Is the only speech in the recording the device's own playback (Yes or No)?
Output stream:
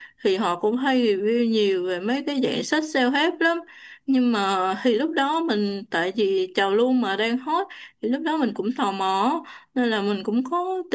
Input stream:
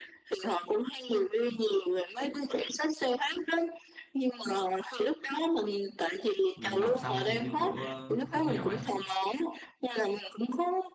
No